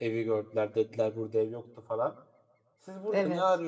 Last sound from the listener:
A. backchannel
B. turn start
A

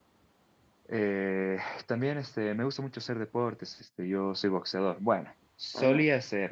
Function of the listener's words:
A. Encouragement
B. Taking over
A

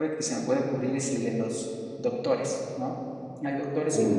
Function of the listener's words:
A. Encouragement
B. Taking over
A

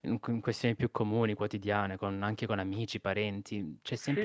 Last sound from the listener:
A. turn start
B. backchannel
B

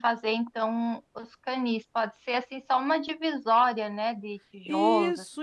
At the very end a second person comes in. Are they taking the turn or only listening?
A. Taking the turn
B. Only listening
A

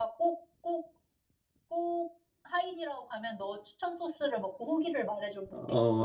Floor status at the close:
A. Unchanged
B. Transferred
B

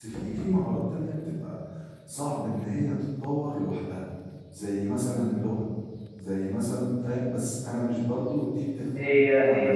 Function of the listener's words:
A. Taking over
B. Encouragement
A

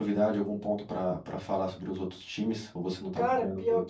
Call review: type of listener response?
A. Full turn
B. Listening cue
A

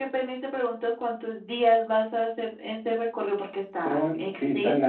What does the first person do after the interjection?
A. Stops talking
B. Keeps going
A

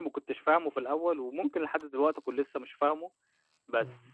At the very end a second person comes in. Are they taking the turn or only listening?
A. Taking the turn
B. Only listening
B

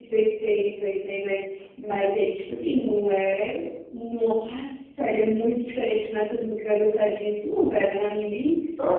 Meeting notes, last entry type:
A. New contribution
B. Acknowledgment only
A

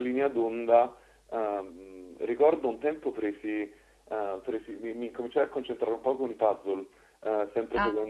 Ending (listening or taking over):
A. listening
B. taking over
A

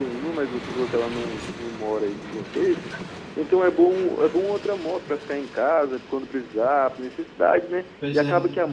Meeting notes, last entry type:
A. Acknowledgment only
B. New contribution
A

